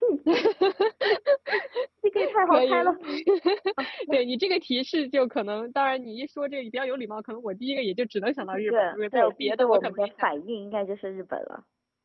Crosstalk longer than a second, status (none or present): present